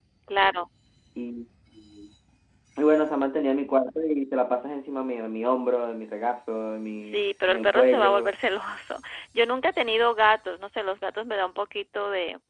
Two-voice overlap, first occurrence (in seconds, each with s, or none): 7.0 s